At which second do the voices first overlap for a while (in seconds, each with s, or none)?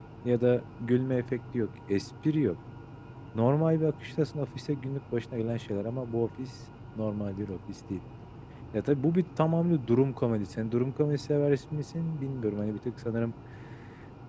none